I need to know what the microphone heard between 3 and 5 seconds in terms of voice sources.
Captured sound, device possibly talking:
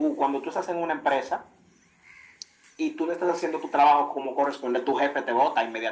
echo only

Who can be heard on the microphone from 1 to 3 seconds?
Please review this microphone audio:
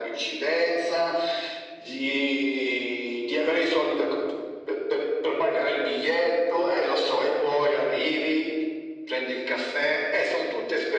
echo only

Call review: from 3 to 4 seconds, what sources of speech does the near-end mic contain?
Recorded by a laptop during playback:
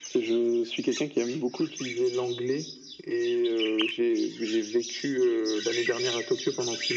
echo only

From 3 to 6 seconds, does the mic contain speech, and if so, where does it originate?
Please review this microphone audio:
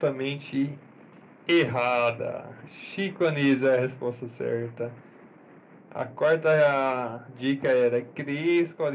echo only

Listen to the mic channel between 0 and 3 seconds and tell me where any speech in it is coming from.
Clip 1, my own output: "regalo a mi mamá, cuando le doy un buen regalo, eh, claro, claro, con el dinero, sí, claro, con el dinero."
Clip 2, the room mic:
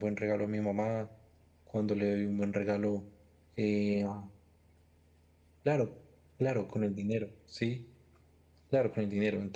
echo only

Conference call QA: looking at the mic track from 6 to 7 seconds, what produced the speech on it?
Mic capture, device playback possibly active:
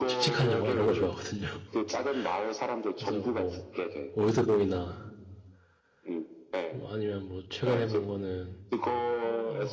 both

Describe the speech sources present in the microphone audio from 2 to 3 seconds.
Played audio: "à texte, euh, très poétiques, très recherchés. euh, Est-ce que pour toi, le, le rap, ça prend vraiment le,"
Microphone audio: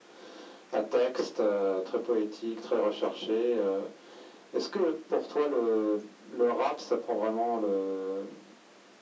echo only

